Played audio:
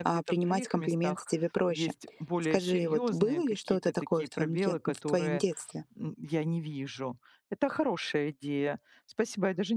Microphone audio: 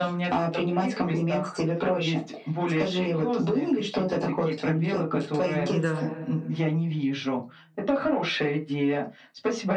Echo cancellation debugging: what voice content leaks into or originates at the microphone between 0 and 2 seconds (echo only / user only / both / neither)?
echo only